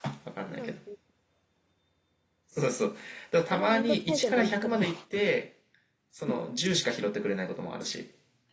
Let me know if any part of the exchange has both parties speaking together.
Yes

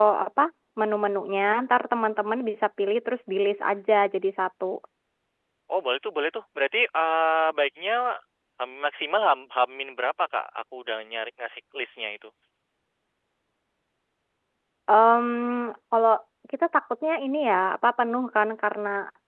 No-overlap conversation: Yes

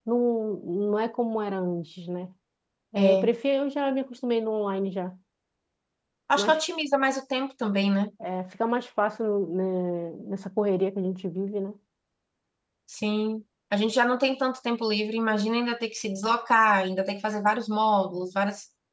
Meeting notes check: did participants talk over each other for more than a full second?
No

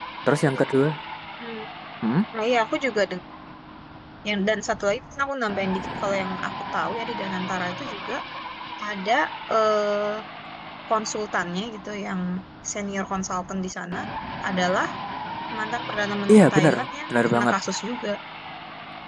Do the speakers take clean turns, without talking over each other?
No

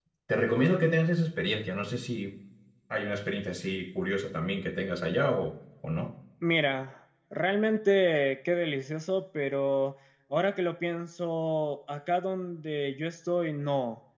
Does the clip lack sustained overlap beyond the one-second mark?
Yes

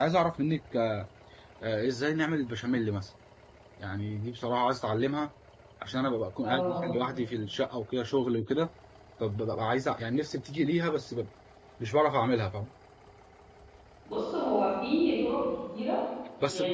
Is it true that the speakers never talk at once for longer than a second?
Yes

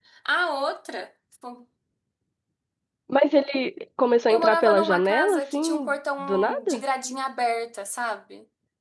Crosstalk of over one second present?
Yes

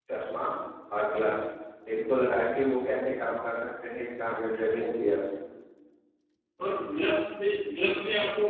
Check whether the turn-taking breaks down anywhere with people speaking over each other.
No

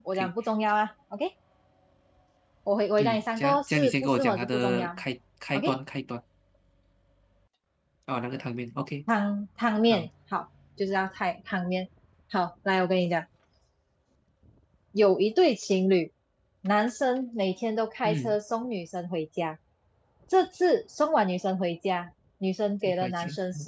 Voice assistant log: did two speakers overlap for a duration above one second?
Yes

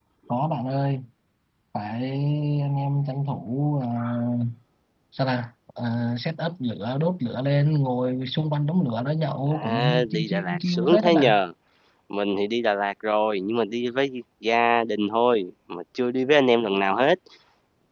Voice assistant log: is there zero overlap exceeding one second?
No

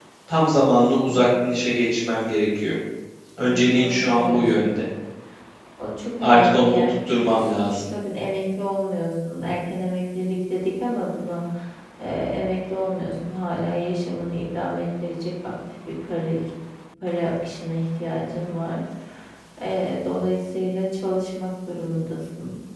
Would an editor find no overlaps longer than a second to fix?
No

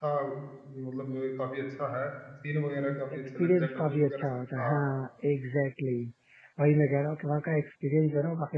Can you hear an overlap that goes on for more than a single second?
Yes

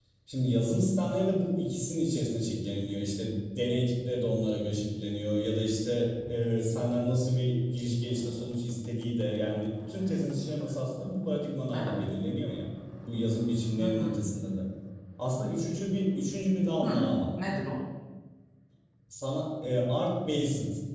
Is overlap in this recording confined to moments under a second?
Yes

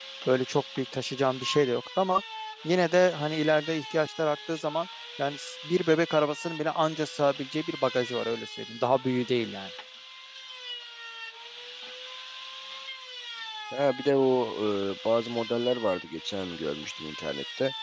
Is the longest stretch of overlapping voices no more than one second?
Yes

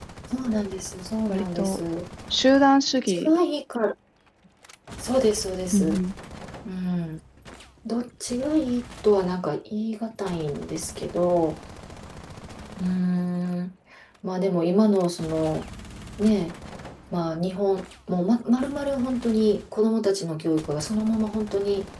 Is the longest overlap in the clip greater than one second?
No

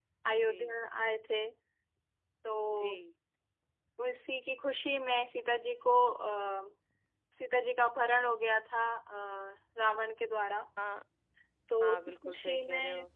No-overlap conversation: No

